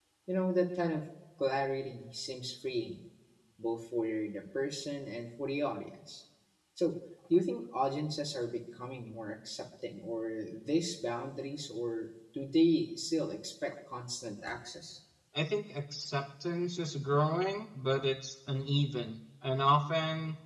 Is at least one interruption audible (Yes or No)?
No